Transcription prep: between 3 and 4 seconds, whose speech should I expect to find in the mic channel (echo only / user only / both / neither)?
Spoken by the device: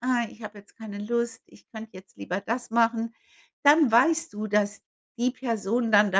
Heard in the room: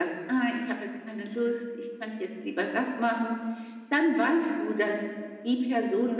echo only